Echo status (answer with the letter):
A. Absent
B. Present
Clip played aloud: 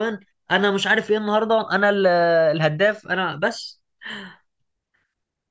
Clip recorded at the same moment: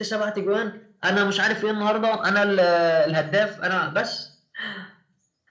B